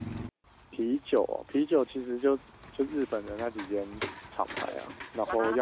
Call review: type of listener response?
listening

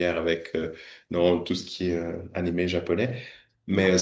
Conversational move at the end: listening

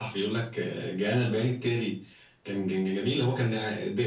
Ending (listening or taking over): listening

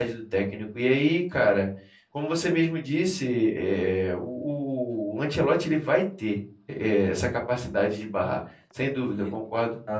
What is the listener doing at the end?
taking over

